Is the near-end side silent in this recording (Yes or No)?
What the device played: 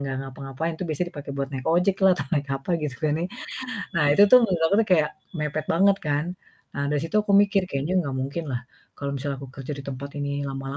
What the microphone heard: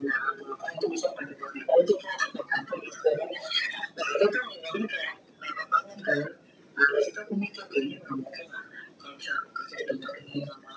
Yes